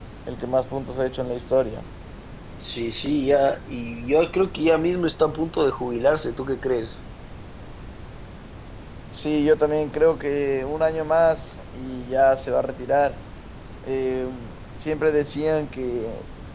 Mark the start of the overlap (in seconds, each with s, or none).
none